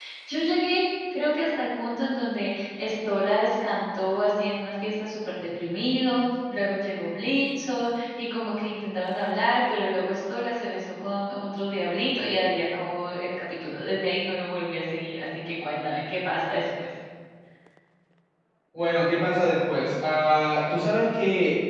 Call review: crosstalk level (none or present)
none